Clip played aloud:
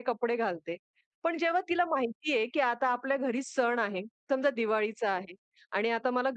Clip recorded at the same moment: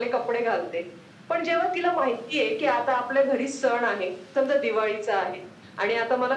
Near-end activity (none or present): none